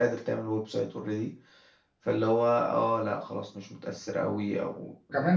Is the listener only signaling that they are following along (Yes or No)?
No